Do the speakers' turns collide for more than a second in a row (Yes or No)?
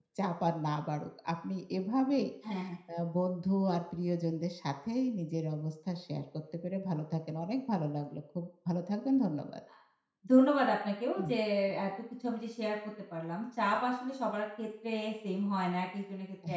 No